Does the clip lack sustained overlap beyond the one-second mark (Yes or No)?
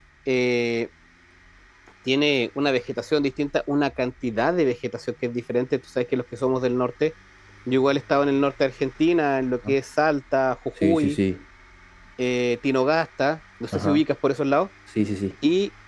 Yes